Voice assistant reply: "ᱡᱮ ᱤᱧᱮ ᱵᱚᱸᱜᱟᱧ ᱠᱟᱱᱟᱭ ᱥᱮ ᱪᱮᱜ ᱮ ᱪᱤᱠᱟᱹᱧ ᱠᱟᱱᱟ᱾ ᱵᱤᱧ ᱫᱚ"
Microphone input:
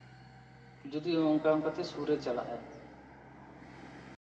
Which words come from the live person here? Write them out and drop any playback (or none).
ᱡᱩᱫᱤ ᱚᱱᱠᱟ ᱚᱱᱠᱟᱛᱮ ᱥᱩᱨ ᱨᱮ ᱪᱟᱞᱟᱜ ᱟᱭ